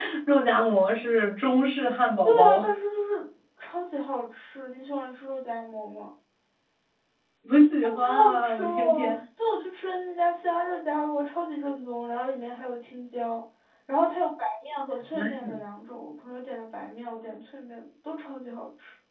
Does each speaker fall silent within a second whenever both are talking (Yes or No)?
No